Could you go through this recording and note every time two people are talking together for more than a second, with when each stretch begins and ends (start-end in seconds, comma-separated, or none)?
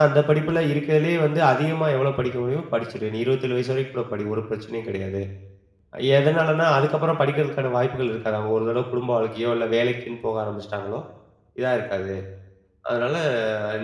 none